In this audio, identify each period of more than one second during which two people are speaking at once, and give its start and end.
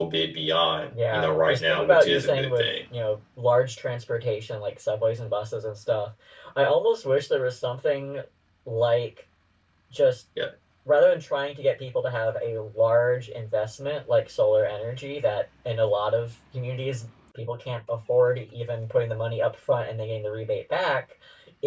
1.1-2.6

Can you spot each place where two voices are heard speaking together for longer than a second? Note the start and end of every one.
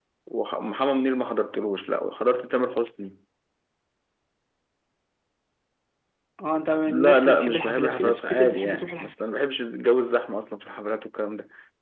6.9-9.1

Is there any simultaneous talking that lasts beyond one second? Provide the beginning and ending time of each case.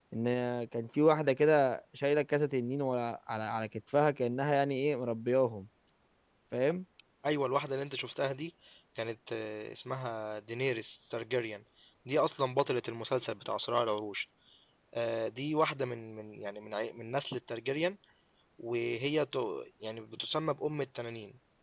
none

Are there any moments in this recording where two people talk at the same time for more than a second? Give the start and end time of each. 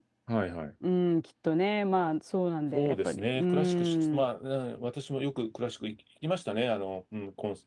2.7-4.3

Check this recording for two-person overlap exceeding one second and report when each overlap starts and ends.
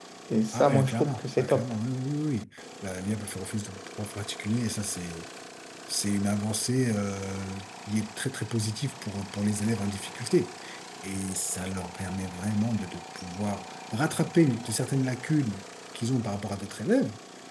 0.5-1.8

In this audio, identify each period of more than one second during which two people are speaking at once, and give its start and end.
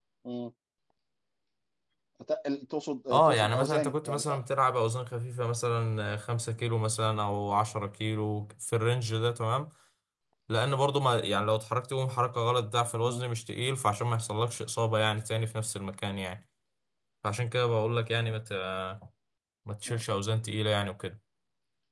3.1-4.4

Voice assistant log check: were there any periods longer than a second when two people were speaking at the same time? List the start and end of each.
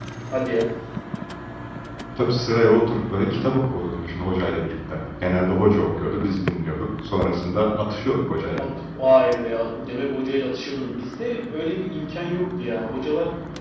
none

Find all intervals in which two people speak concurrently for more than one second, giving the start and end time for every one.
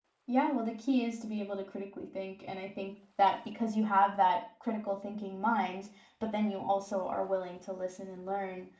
none

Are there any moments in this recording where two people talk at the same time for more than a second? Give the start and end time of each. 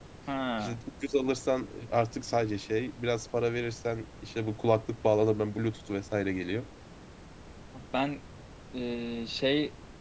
none

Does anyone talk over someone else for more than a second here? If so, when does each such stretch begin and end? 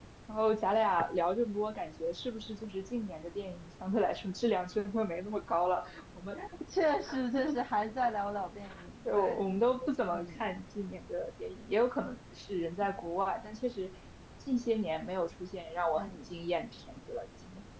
none

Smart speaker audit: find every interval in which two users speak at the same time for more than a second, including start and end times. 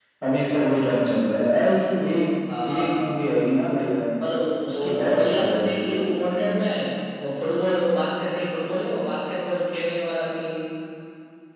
4.7-6.3

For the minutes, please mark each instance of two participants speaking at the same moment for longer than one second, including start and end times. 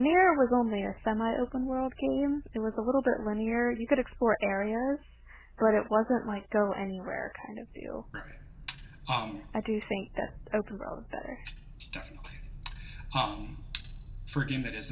none

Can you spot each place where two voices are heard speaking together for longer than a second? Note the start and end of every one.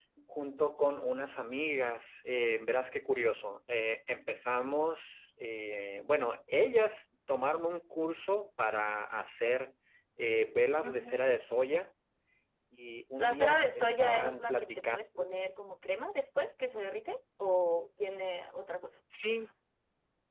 13.2-15.0

